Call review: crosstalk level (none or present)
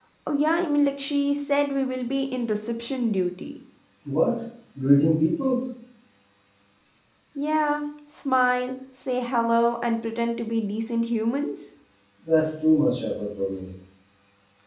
none